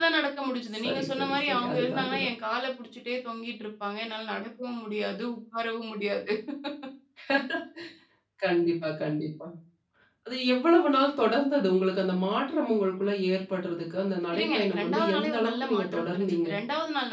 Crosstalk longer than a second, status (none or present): present